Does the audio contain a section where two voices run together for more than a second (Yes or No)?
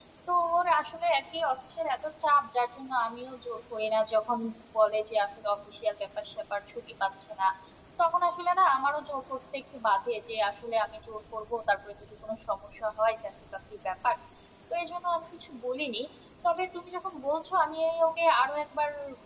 No